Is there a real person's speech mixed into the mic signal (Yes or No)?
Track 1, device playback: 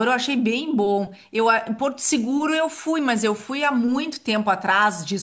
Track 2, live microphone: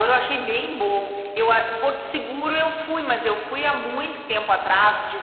No